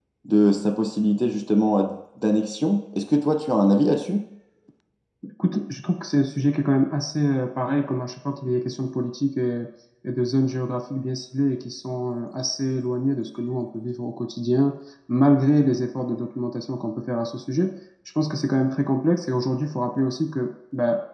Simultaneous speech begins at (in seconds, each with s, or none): none